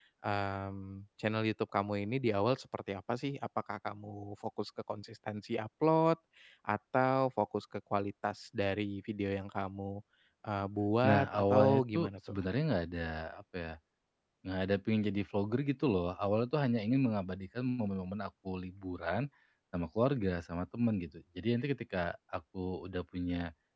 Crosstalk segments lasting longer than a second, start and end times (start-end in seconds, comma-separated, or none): 11.0-12.4